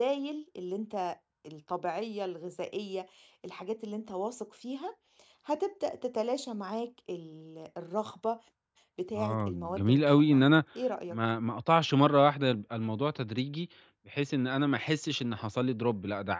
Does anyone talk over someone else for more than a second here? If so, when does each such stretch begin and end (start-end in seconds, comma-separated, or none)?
9.2-10.4